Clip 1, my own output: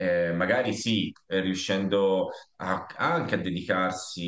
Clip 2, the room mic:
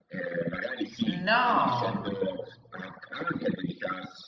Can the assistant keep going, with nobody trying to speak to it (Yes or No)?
No